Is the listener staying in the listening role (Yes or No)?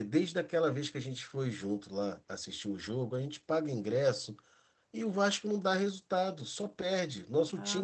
No